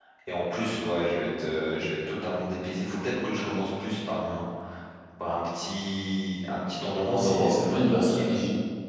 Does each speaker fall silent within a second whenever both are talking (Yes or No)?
No